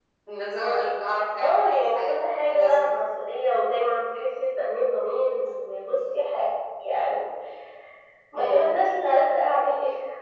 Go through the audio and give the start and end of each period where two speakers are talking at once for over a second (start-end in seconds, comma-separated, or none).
1.4-3.0